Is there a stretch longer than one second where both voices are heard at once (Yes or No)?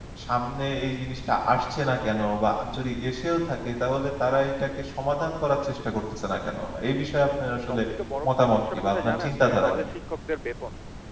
Yes